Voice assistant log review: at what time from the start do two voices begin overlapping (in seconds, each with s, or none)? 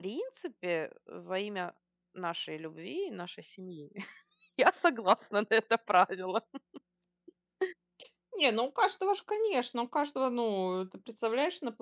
none